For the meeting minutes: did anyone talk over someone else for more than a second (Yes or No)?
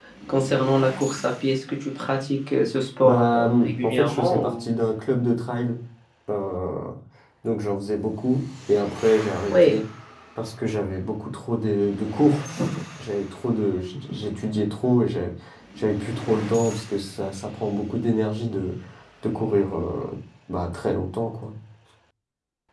Yes